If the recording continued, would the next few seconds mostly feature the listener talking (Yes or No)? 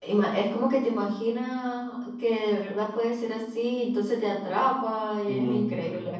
Yes